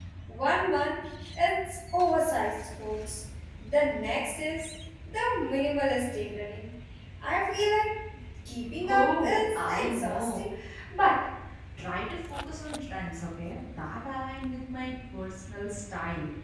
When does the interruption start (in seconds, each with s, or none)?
8.9 s